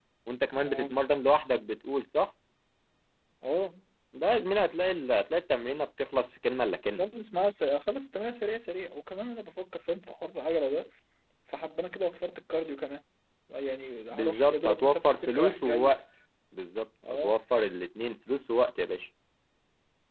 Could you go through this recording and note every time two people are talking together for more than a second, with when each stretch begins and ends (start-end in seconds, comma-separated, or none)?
14.1-15.9